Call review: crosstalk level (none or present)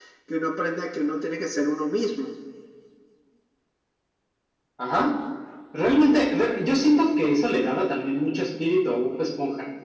none